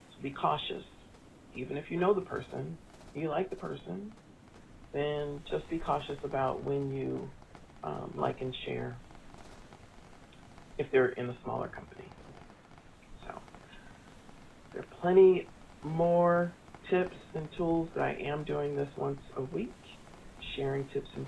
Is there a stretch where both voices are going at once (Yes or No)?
No